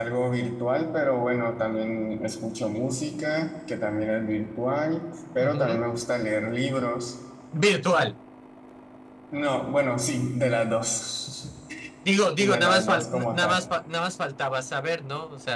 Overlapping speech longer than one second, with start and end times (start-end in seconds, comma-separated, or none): 12.4-13.7